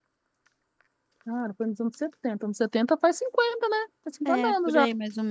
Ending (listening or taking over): taking over